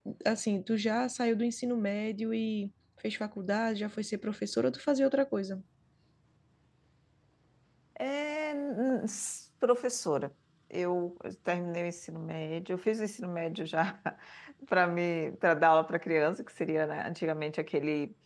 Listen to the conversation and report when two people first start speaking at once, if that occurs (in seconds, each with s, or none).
none